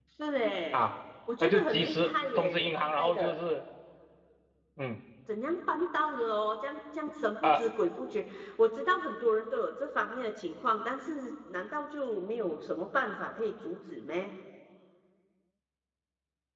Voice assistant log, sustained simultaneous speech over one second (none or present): present